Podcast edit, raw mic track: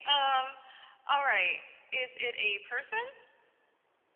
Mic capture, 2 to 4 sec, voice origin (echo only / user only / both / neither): echo only